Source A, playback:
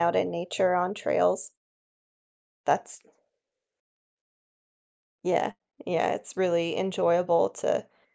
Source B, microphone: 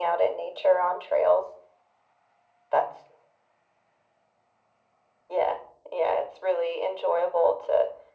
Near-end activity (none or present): none